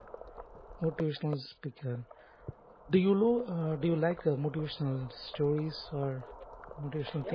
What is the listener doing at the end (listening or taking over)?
taking over